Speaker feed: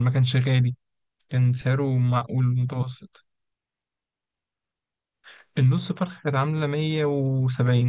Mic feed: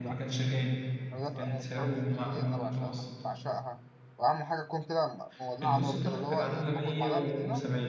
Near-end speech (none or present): present